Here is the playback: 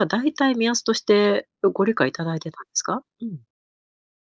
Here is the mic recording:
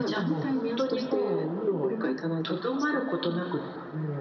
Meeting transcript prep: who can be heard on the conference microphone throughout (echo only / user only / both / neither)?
both